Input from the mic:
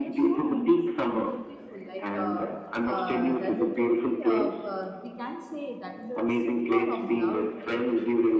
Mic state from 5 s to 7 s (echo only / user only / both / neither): both